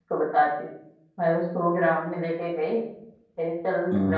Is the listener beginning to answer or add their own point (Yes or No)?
No